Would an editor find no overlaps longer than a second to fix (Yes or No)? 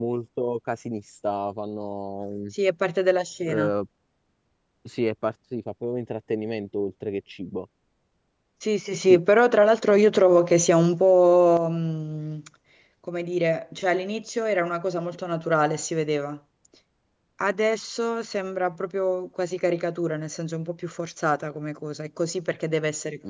Yes